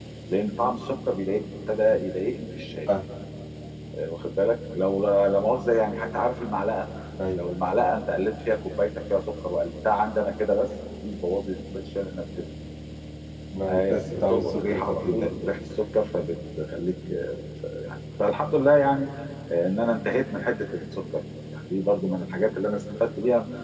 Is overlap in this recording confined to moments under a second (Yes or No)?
No